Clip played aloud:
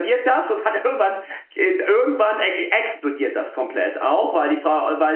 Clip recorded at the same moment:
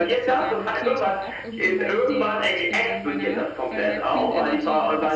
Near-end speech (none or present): present